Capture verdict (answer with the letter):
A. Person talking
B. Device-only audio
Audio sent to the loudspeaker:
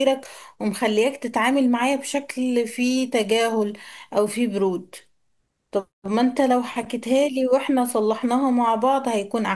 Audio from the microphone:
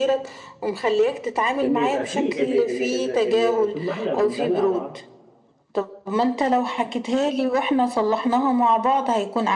A